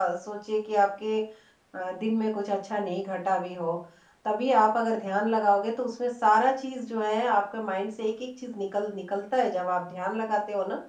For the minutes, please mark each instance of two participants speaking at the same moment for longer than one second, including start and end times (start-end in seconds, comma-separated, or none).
none